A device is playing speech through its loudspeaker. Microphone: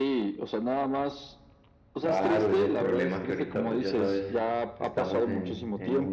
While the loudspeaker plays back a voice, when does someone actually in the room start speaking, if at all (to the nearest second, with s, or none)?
2 s